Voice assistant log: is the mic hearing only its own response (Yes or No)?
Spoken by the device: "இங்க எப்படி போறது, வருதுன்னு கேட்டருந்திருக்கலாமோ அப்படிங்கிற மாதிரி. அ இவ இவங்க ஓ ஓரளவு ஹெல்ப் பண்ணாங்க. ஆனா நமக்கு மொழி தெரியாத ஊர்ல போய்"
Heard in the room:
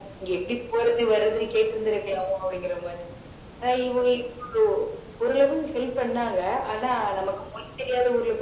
Yes